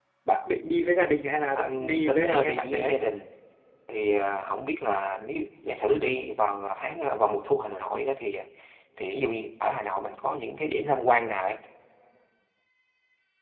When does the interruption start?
1.6 s

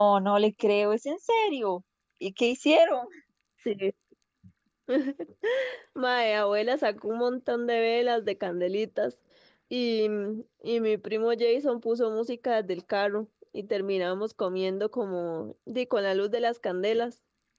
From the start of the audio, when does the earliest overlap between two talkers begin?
none

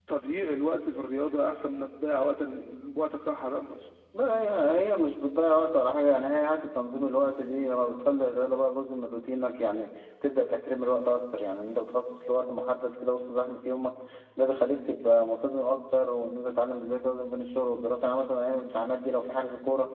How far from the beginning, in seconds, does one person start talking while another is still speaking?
none

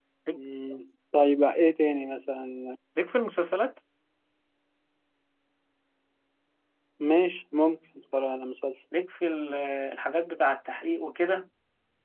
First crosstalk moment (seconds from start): none

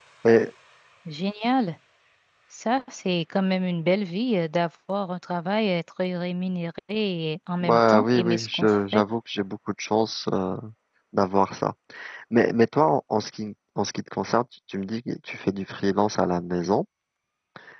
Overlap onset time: 7.6 s

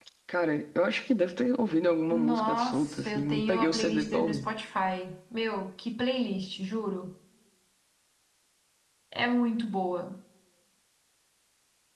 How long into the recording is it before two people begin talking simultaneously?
2.1 s

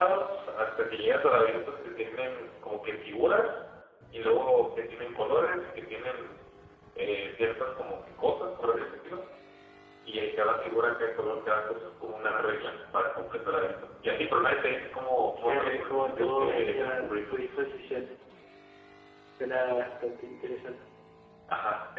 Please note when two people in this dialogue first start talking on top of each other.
15.4 s

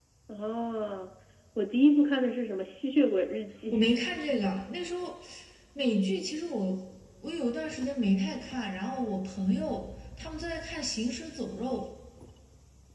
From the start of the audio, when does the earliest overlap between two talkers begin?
none

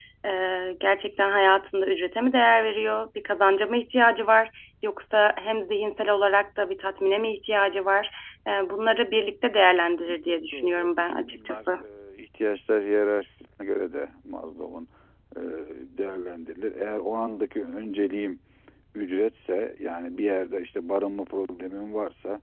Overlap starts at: 10.3 s

